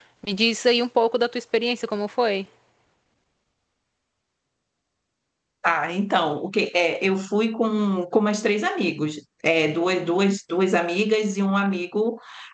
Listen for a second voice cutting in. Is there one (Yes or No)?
No